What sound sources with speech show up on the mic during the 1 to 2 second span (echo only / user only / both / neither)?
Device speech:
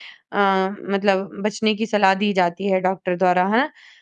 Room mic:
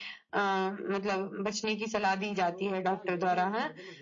echo only